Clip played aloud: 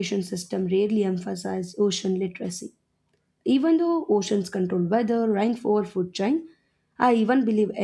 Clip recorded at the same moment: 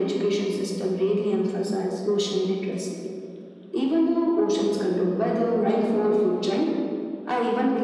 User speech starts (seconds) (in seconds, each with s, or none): none